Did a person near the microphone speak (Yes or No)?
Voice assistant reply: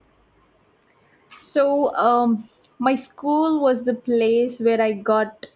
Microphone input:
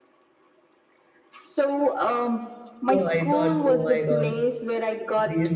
Yes